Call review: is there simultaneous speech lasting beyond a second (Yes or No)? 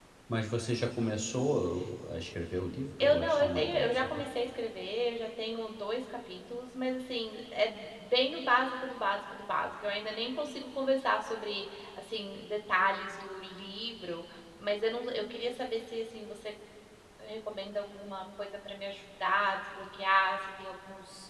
Yes